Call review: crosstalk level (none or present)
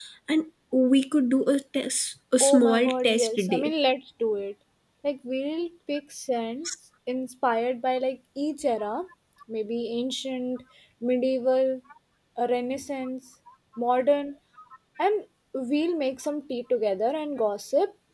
present